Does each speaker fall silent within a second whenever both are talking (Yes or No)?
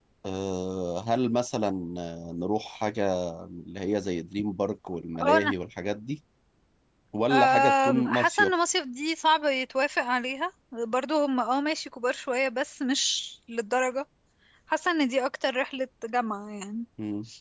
No